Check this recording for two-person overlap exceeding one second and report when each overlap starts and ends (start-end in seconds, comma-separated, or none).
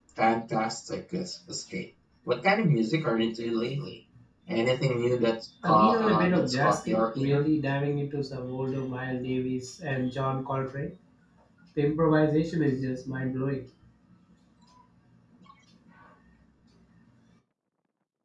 5.6-7.4